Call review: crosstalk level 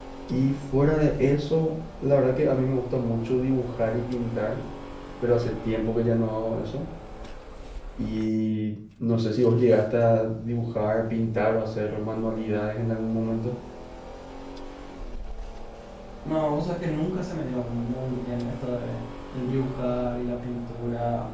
none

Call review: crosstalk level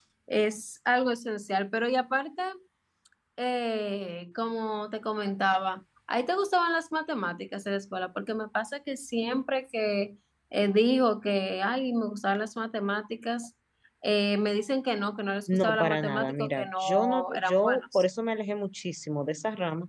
present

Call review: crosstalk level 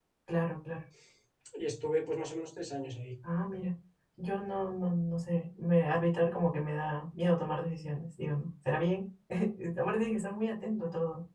none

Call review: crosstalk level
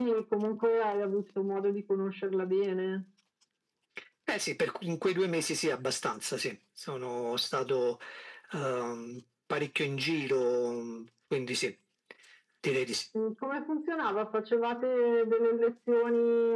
none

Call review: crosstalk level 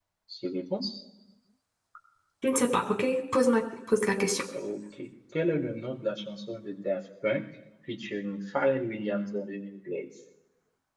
none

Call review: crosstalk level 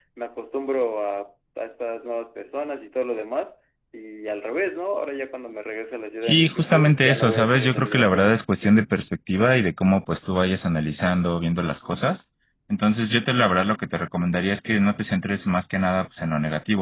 present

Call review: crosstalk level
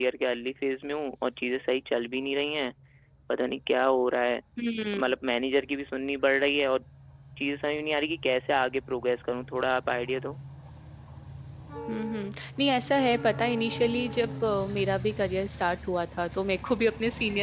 none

